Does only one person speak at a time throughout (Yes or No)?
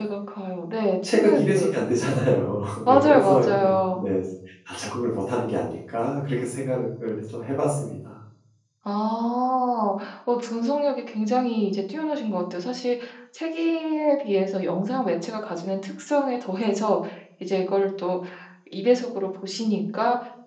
No